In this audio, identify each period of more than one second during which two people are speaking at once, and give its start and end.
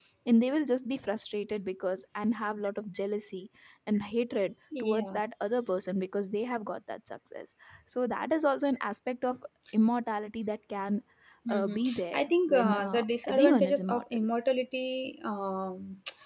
11.5-14.2

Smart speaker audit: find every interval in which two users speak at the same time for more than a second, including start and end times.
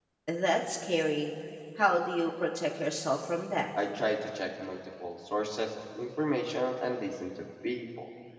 none

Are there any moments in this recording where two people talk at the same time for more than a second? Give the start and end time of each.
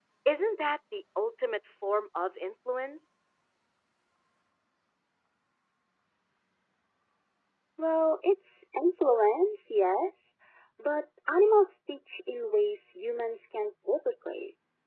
none

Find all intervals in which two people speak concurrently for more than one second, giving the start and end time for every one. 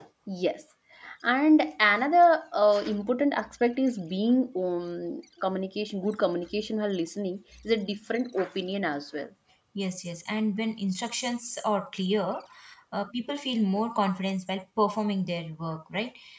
none

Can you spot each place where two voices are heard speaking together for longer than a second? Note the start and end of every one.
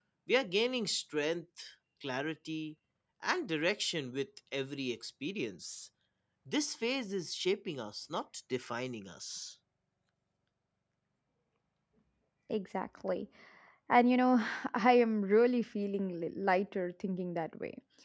none

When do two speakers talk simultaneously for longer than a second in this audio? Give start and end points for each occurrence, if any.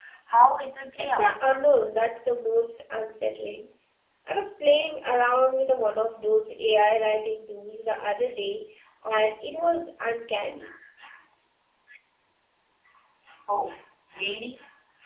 none

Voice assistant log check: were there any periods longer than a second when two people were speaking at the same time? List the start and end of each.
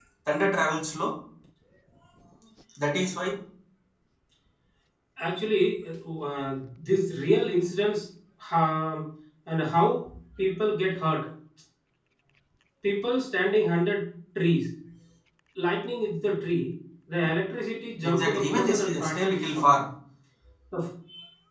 18.0-19.7

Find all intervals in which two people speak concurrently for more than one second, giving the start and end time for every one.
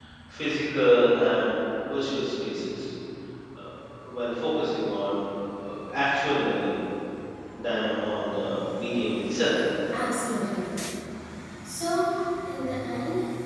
none

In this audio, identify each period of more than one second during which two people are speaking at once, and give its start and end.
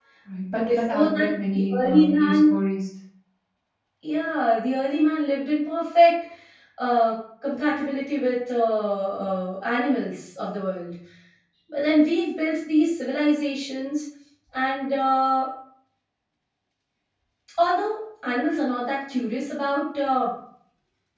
0.7-2.4

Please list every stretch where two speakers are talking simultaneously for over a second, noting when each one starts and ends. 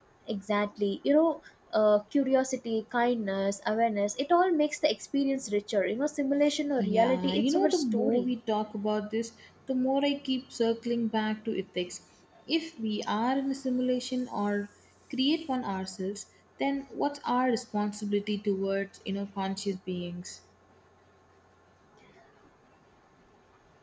6.8-8.3

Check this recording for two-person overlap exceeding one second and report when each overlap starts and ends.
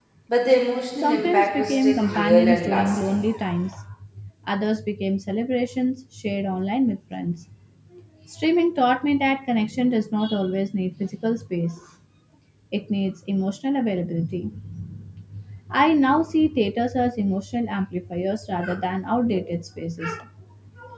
1.0-3.2

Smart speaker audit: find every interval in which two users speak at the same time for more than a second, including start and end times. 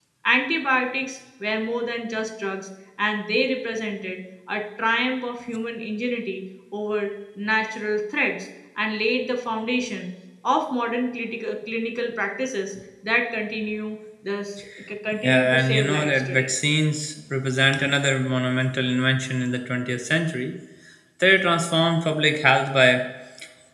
15.2-16.5

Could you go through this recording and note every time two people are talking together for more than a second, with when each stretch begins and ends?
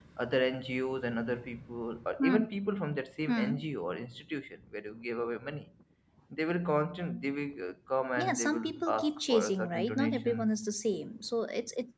8.2-10.6

